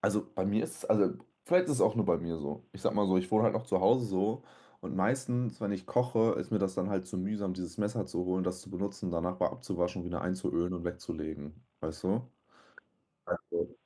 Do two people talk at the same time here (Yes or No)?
No